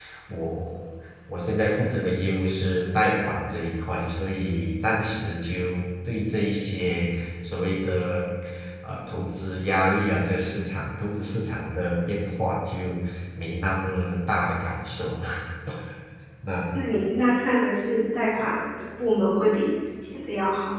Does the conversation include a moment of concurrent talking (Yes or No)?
No